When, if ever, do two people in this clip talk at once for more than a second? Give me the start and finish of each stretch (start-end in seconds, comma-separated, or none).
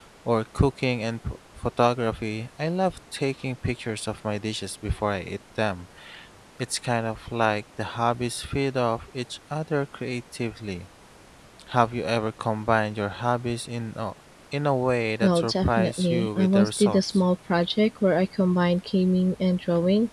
15.2-17.2